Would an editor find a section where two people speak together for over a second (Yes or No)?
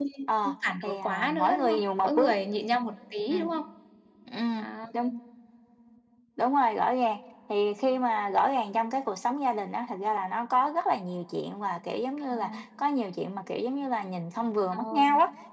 Yes